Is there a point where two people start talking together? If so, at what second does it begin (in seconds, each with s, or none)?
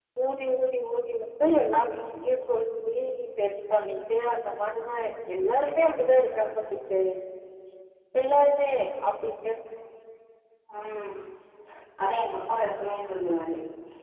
none